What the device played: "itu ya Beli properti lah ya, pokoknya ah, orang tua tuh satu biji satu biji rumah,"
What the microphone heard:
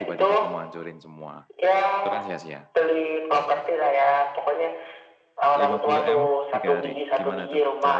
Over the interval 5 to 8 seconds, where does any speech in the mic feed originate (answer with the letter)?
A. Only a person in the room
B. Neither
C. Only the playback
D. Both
D